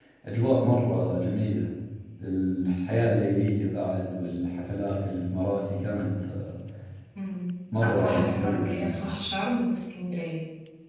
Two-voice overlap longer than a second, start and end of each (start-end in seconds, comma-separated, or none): 7.8-9.1